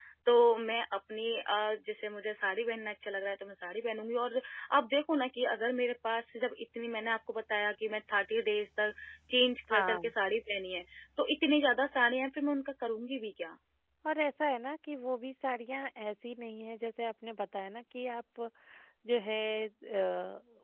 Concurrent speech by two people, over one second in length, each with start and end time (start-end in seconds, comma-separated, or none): none